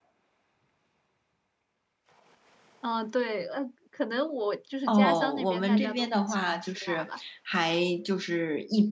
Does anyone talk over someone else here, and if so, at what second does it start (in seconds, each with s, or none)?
4.9 s